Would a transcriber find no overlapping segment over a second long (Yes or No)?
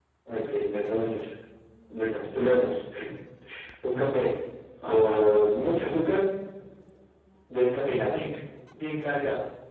Yes